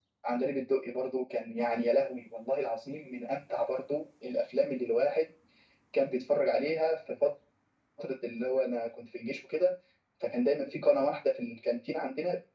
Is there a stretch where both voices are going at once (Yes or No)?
No